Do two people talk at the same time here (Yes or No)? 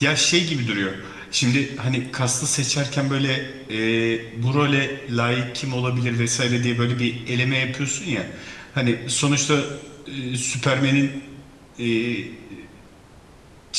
No